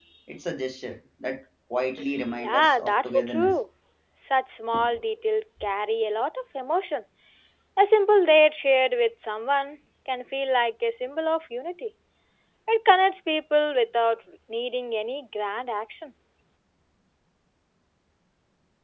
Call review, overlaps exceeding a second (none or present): present